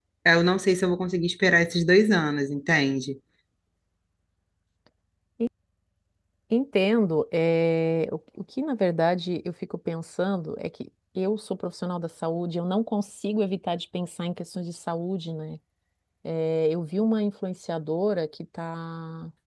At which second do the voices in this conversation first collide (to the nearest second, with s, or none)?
none